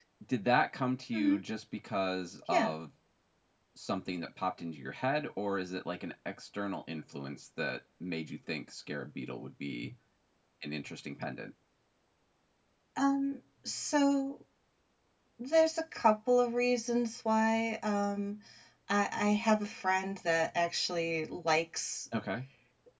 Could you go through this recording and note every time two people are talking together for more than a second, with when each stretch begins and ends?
none

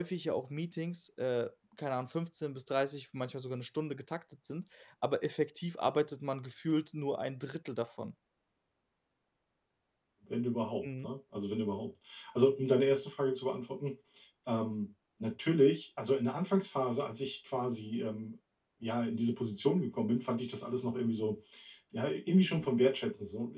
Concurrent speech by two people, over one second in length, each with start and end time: none

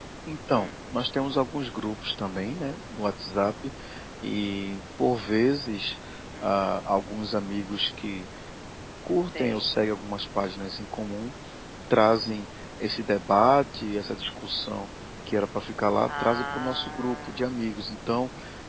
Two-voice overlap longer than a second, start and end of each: 16.1-17.5

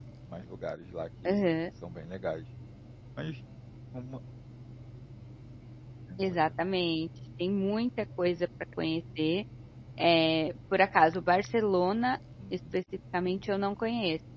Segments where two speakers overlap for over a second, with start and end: none

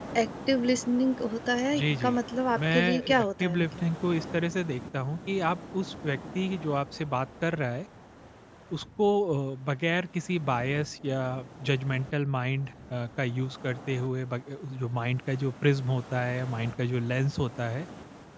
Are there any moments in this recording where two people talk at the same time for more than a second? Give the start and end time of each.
2.6-3.8

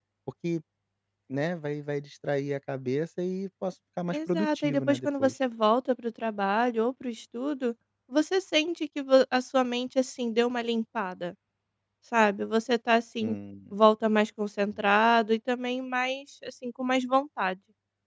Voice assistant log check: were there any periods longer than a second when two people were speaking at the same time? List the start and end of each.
4.1-5.3

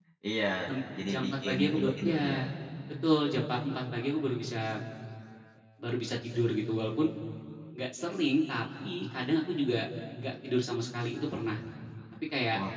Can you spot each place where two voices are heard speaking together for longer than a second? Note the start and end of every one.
1.1-2.3

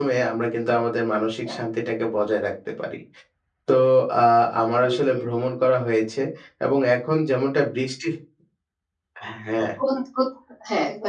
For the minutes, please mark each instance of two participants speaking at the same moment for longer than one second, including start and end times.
none

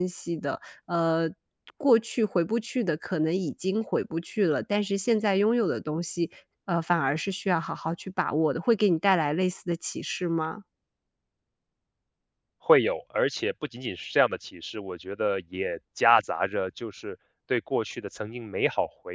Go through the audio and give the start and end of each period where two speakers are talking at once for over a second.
none

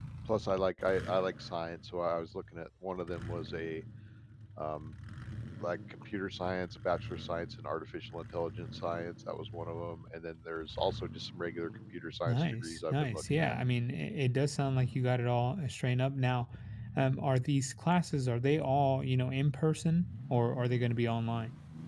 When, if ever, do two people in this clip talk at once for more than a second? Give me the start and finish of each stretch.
12.3-13.6

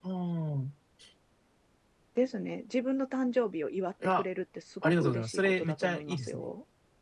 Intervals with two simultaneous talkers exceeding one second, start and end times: 4.8-6.5

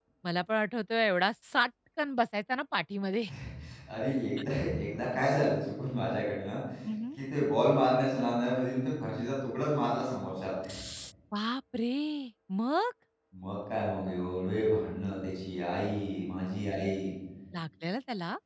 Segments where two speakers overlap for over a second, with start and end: none

